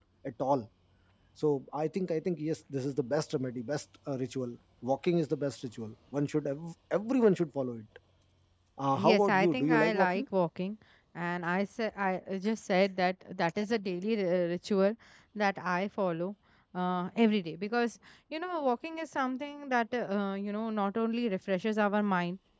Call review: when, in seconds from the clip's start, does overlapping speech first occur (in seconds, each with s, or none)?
8.9 s